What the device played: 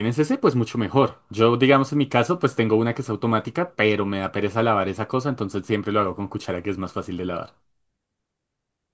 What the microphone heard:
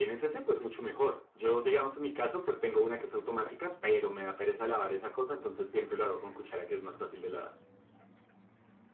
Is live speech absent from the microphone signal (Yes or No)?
Yes